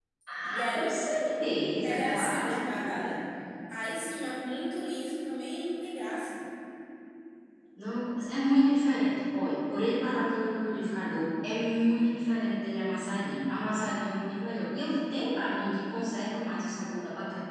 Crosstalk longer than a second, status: present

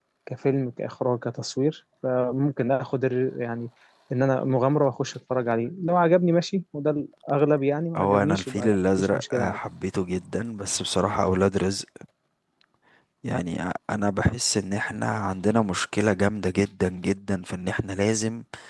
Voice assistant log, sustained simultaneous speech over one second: present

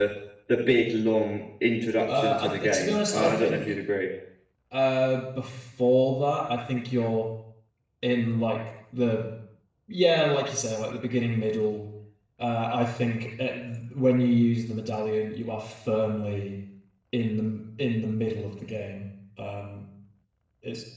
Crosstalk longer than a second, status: present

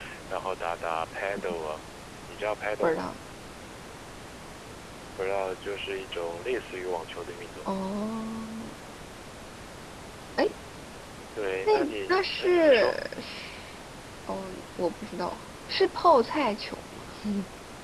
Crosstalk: present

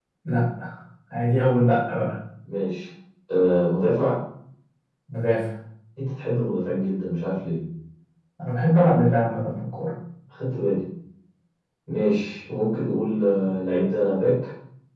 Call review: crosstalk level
none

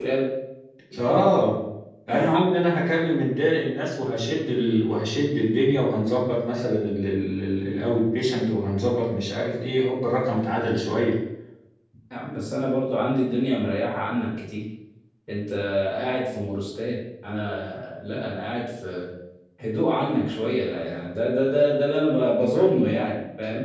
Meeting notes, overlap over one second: none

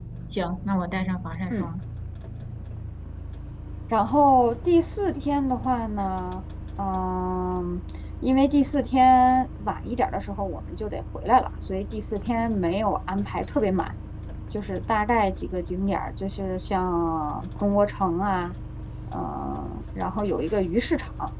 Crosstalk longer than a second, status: none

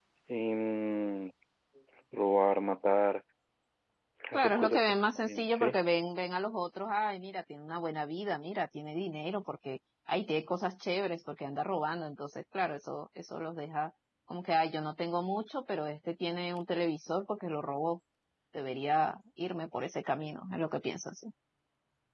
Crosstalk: present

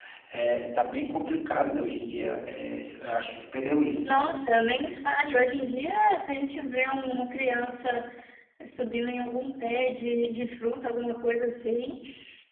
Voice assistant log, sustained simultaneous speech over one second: none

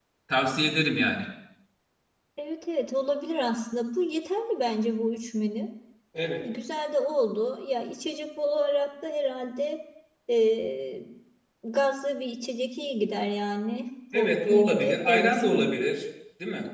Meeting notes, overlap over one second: present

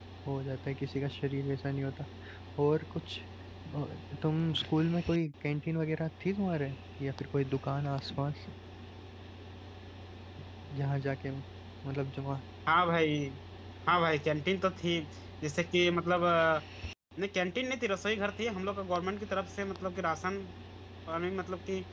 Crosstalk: none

